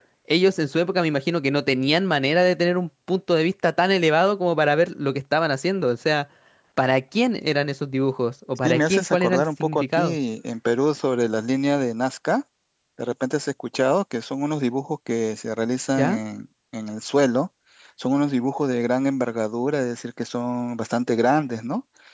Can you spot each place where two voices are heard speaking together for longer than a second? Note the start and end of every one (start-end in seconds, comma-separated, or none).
8.6-10.2